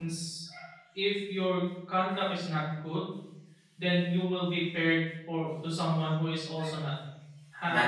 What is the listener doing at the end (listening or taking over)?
listening